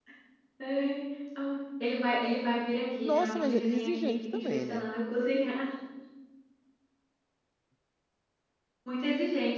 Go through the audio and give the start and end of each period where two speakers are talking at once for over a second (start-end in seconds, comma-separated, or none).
3.0-4.9